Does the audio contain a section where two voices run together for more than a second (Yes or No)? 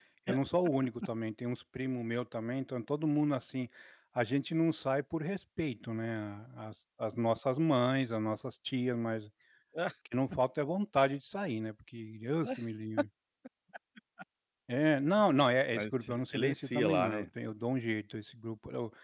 Yes